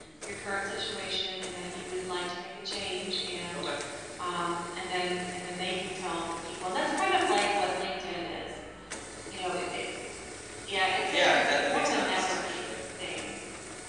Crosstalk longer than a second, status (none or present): present